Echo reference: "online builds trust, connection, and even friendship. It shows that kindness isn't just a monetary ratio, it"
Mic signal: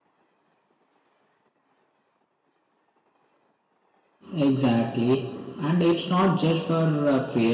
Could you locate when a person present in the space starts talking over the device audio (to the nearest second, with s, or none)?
4 s